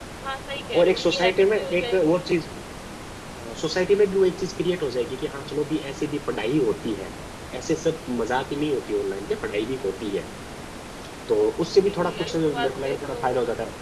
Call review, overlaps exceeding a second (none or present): present